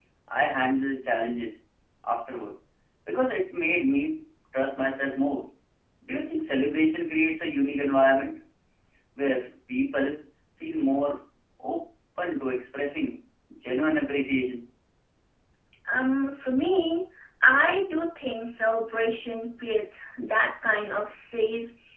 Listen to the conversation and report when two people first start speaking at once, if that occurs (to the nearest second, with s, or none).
none